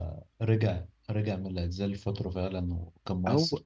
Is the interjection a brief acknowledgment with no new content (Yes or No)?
No